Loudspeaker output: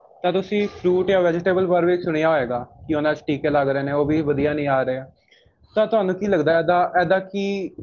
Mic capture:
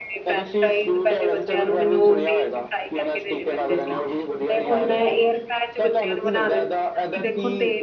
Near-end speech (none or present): present